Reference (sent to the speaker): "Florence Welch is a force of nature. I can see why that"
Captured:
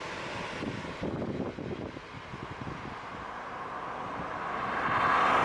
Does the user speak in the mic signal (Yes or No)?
No